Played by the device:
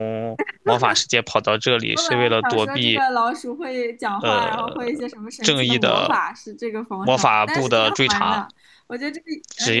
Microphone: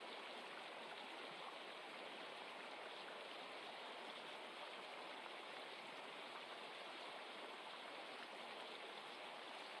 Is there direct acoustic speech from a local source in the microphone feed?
No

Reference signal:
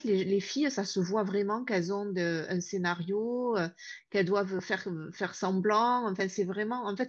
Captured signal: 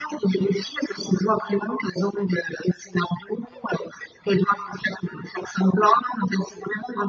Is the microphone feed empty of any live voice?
Yes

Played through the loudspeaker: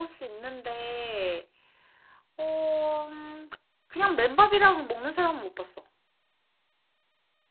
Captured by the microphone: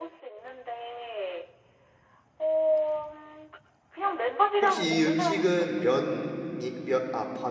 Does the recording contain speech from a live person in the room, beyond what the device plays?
Yes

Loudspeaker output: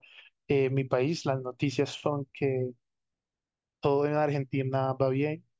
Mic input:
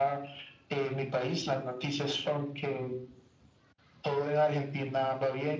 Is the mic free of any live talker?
Yes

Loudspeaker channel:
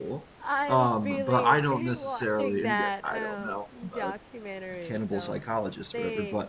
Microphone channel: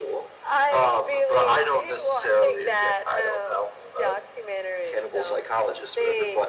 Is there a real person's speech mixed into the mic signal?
No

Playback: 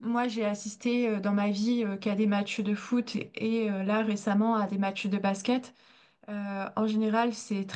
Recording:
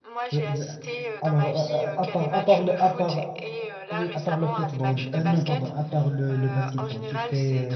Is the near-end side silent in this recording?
No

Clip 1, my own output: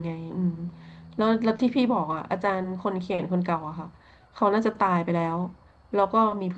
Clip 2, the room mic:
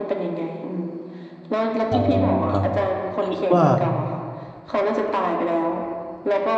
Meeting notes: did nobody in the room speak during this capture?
No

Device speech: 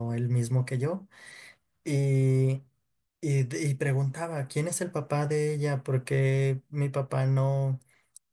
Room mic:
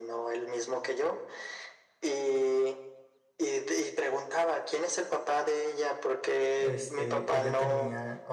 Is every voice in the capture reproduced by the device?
No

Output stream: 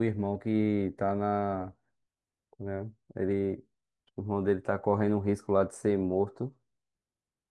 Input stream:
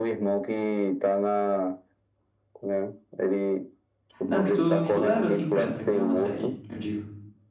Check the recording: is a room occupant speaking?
Yes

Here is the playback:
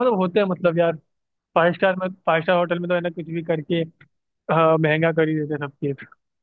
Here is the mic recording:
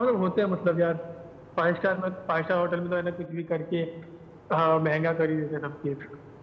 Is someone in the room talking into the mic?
No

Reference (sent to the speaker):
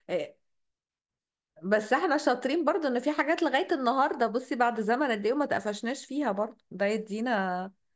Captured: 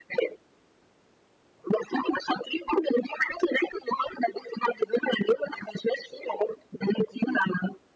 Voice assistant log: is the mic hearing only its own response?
Yes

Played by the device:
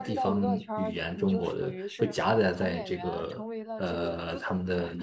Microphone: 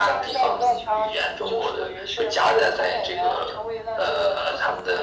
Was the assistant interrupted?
No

